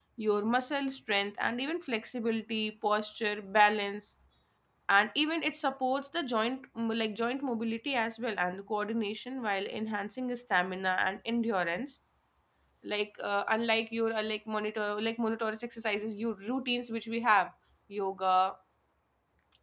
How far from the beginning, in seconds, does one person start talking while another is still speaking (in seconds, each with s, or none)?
none